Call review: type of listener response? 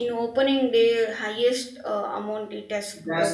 taking over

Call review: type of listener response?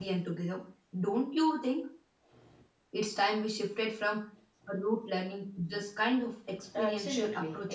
taking over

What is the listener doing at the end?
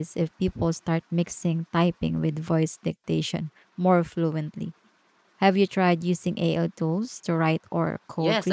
taking over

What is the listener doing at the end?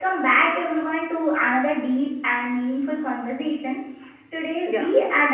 listening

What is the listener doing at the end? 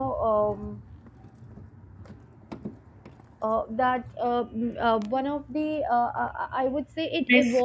listening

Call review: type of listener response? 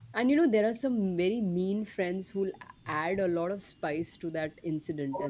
listening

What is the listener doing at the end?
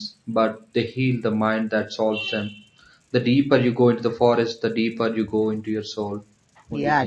taking over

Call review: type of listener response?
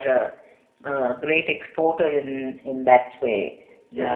taking over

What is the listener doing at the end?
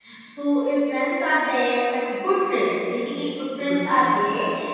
listening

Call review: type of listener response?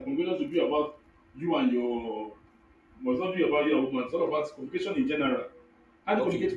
taking over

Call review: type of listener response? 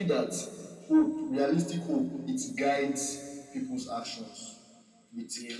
listening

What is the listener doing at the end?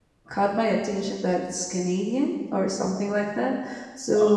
listening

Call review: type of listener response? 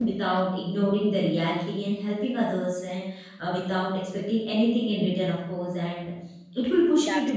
listening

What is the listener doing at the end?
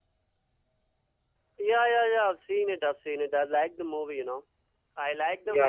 listening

